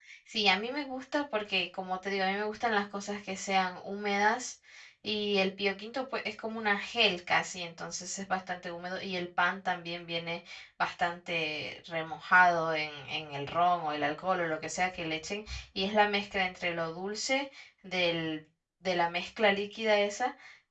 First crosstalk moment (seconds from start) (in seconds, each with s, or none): none